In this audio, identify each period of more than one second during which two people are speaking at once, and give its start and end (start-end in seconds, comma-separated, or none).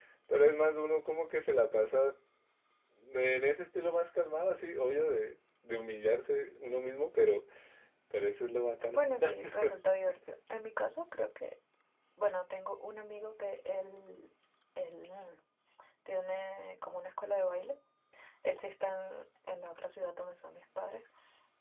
none